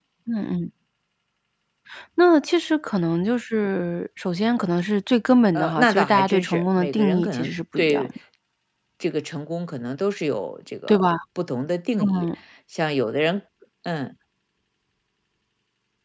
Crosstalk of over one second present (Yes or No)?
Yes